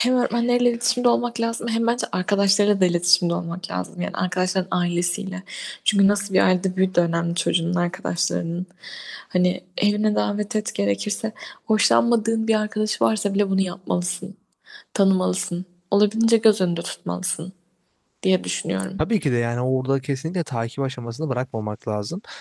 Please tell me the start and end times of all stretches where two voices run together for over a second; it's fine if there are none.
none

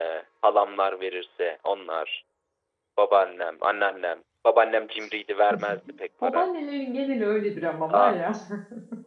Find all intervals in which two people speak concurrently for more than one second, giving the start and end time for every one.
none

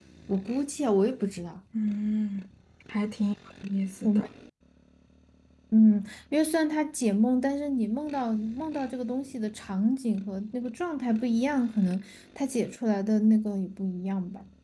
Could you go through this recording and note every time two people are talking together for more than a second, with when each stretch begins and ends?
none

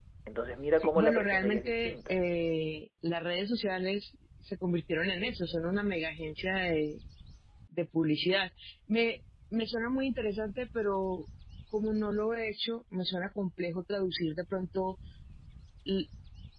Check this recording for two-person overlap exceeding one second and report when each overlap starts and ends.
0.8-2.2

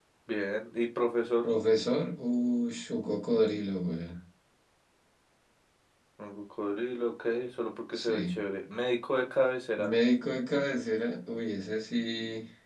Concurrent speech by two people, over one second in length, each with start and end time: none

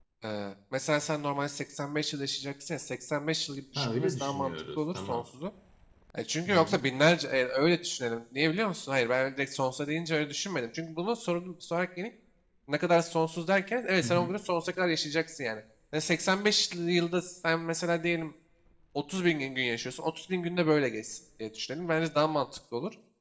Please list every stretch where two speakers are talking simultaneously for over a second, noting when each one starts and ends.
3.8-5.2

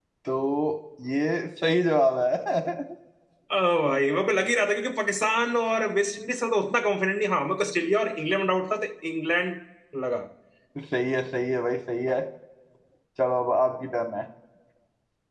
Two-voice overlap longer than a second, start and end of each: none

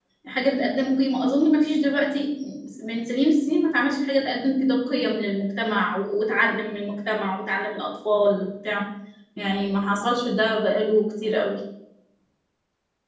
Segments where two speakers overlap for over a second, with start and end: none

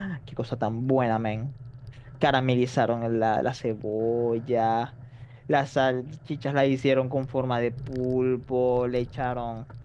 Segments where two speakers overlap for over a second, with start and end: none

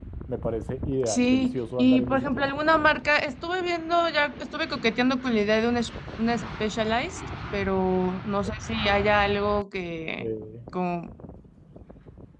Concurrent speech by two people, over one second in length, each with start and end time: 1.1-2.5

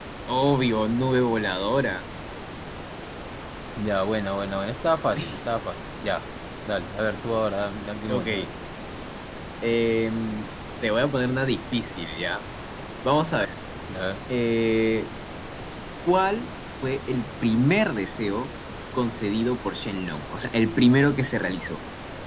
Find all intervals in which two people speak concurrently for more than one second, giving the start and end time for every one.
none

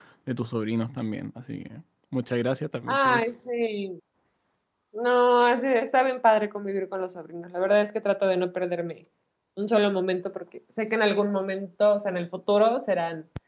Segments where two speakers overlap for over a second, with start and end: none

